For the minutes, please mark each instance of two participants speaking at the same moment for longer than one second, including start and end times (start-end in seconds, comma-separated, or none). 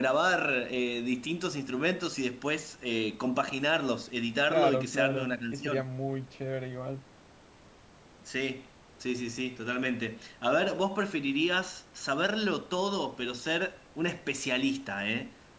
4.5-5.8